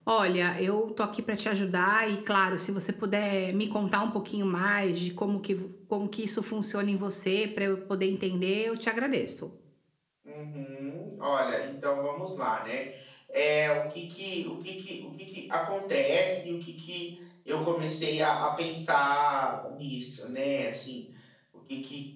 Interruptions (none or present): none